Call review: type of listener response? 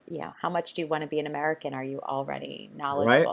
taking over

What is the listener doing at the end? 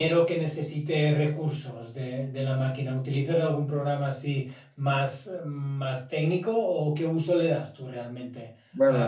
taking over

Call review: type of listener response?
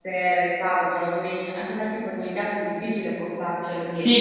taking over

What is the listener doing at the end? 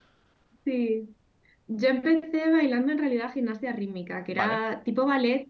listening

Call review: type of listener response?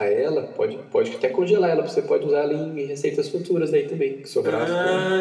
taking over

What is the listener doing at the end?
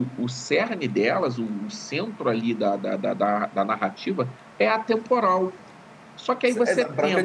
taking over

